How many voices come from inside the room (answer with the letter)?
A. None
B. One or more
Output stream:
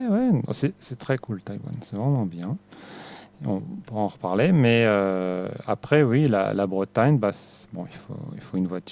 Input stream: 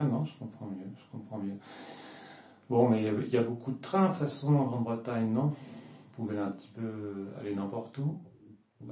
B